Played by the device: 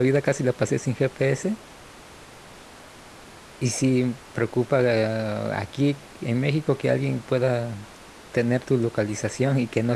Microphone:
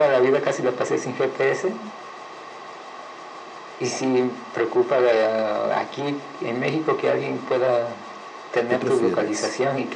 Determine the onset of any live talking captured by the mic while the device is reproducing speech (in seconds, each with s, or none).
8.7 s